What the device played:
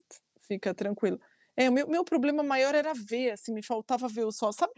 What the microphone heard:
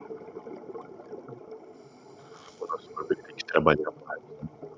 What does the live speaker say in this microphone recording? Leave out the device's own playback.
O nosso corpo, ele tem que trabalhar mais, né.

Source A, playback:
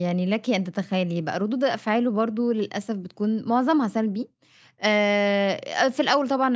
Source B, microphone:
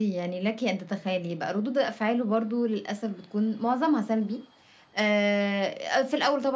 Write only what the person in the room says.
none

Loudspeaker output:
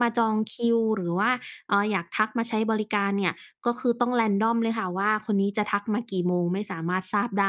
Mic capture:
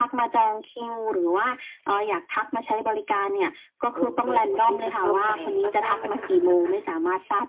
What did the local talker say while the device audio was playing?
โอเค พอที่จะเข้าใจ แล้วก็ทราบปัญหาแล้วนะคะ

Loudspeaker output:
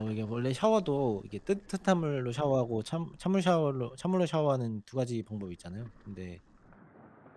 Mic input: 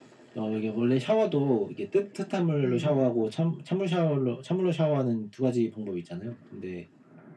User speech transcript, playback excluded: 네.

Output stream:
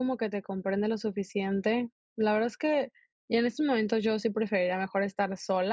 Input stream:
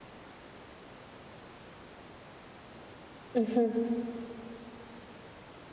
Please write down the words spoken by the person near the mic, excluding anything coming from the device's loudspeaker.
Ujú.

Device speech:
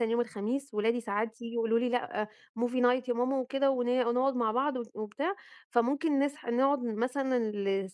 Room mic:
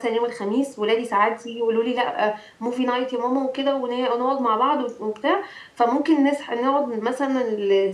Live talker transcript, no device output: none

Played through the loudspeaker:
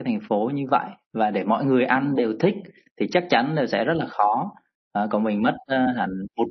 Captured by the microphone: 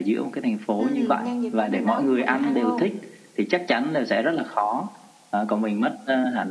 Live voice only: Ừm, nhân dịp đấy mình nấu cho mọi người ăn luôn.

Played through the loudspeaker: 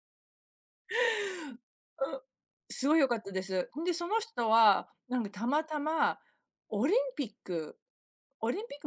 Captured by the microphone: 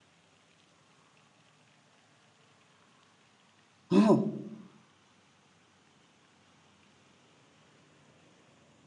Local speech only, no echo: うん。

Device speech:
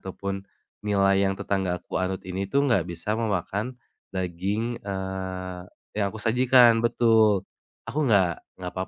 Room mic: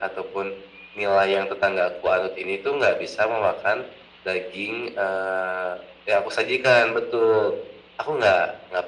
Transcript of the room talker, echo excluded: none

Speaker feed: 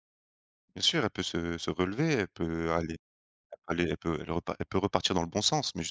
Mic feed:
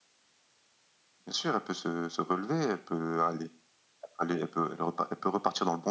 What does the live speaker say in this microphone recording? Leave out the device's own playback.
none

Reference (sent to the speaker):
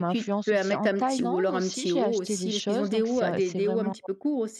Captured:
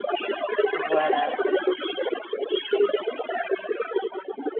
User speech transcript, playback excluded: Voilà.

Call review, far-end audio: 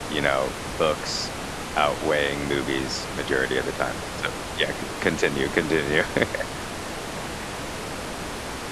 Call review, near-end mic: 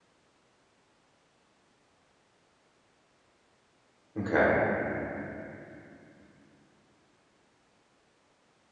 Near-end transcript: Okay.

